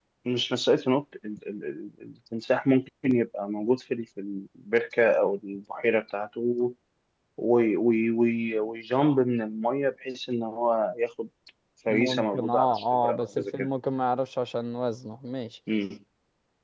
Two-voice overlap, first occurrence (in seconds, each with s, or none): 11.9 s